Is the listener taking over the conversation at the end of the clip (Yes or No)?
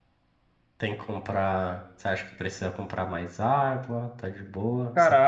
Yes